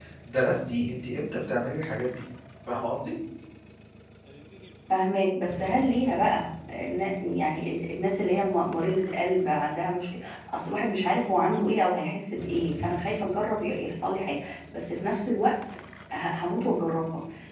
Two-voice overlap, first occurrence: none

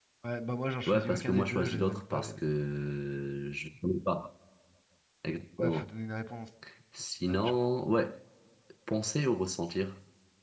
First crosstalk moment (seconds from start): 0.9 s

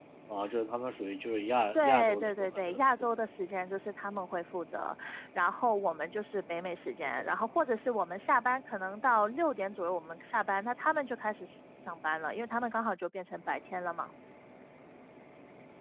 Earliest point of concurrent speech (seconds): 1.7 s

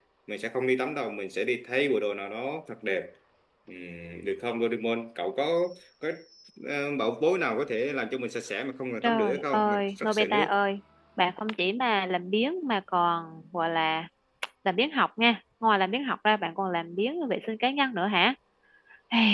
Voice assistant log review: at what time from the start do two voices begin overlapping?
9.0 s

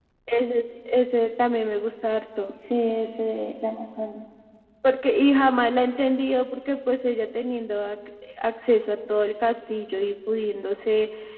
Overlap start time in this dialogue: none

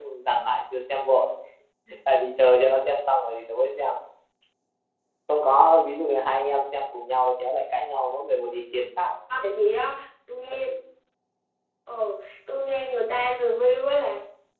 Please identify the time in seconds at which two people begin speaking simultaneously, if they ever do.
none

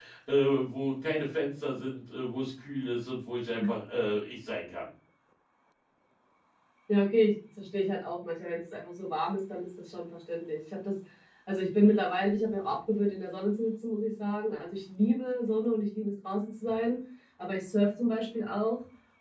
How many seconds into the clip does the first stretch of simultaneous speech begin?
none

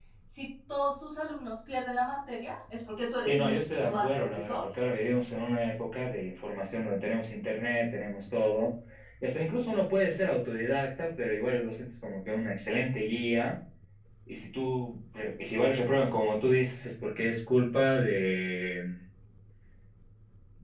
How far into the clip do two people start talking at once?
3.2 s

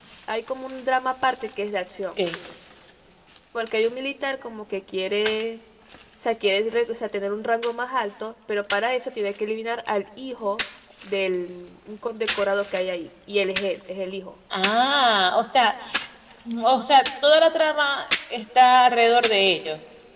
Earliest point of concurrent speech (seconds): none

